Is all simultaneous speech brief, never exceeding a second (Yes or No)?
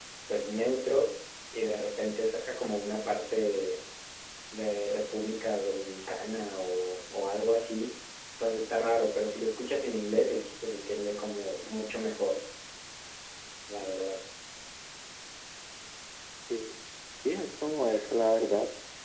Yes